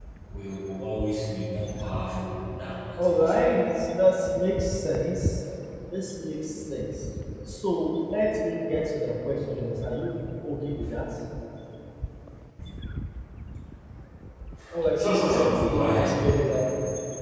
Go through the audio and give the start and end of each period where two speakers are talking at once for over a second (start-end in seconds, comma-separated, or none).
15.0-16.2